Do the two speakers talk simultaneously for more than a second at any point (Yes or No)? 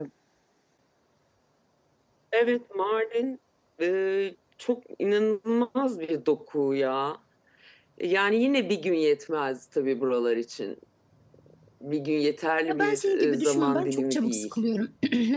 Yes